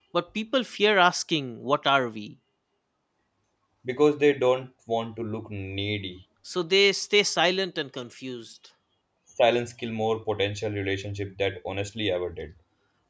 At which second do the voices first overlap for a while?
none

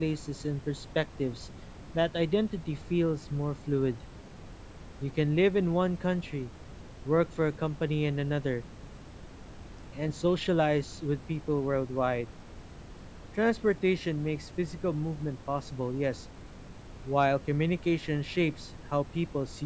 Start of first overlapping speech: none

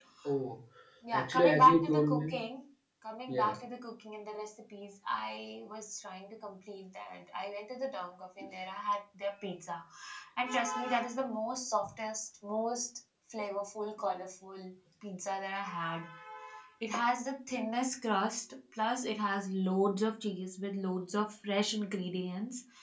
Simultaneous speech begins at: 1.1 s

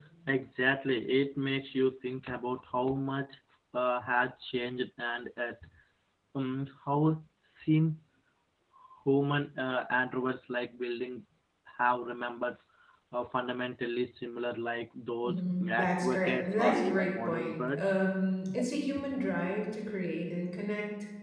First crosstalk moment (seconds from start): 15.2 s

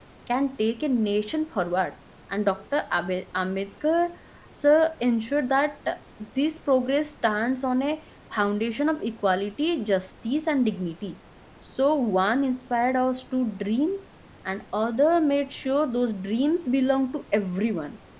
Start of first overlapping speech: none

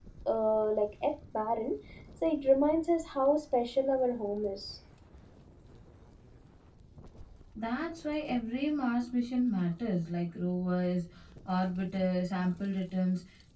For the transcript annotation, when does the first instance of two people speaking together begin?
none

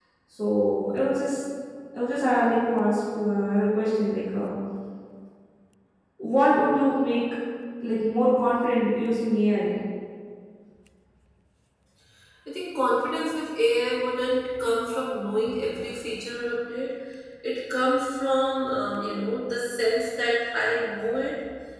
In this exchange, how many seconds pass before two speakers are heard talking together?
none

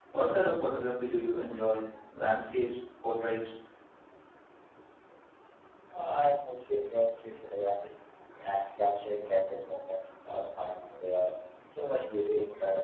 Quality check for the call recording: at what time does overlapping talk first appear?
none

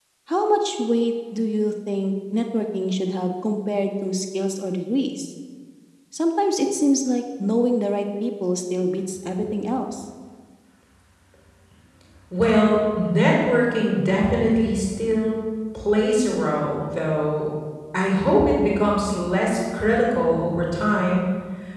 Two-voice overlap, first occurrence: none

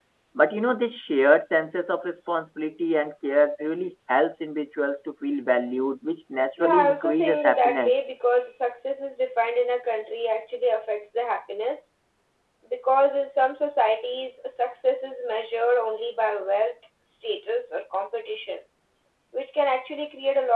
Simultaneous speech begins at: 6.6 s

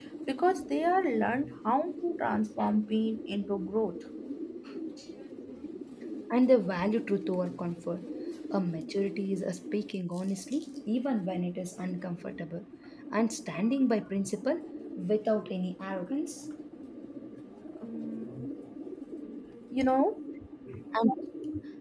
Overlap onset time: none

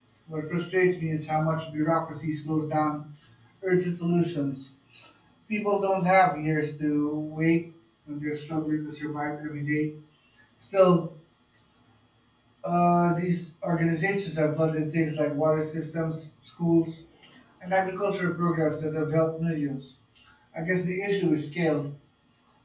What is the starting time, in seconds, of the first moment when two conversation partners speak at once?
none

